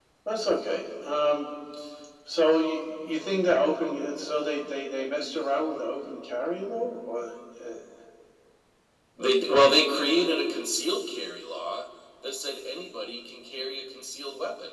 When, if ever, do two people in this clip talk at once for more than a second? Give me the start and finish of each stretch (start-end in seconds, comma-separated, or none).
none